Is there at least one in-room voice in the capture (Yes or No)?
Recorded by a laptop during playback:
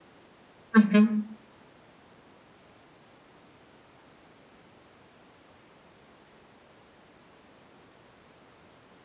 Yes